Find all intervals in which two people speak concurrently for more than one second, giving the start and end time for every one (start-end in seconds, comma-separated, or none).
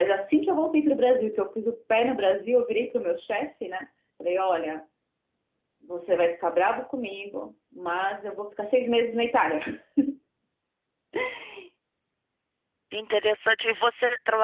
none